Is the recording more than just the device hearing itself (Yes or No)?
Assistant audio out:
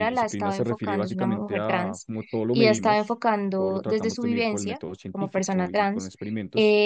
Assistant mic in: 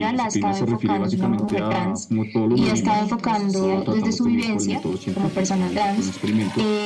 Yes